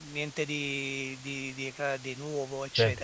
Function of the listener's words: taking over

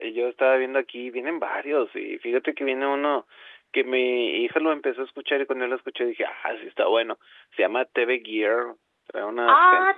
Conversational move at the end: listening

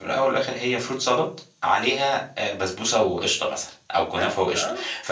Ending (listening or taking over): listening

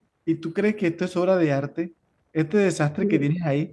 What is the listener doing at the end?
listening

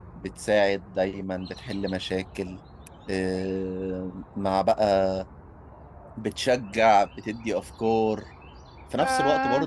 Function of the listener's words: listening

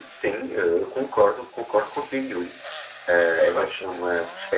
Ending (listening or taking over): listening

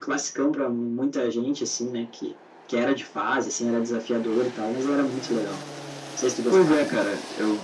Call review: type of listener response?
taking over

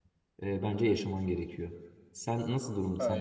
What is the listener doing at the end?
listening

